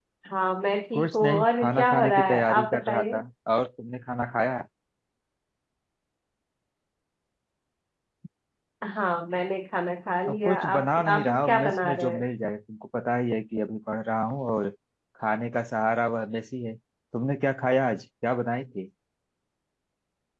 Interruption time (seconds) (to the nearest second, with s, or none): 1 s